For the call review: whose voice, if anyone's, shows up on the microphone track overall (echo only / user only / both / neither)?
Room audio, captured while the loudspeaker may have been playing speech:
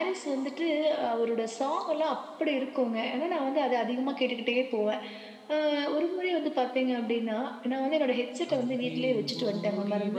both